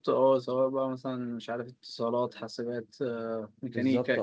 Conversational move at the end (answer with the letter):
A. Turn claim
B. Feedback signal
A